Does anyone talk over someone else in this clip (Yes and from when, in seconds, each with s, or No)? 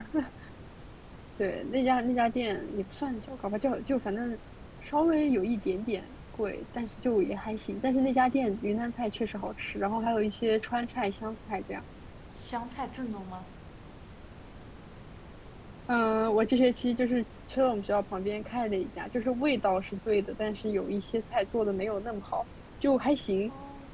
No